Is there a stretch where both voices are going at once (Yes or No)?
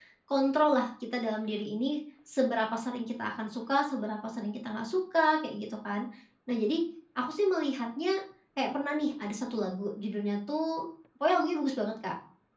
No